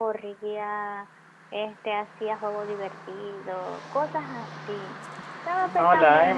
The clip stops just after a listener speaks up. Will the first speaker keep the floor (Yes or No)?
No